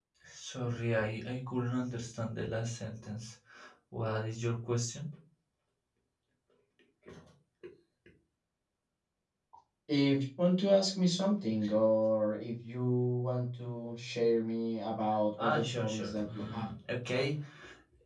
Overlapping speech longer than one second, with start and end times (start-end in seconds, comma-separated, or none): 15.4-16.7